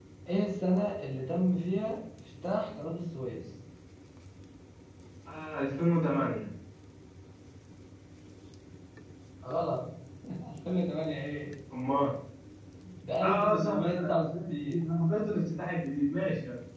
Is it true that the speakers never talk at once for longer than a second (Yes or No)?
No